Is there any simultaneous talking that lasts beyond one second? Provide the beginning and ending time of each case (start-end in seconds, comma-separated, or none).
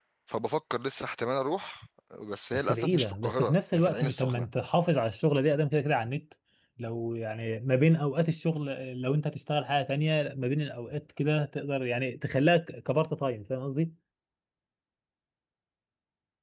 2.5-4.5